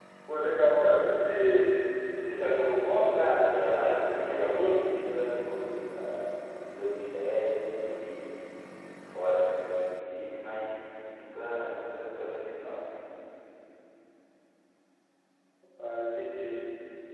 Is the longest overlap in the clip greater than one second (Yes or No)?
Yes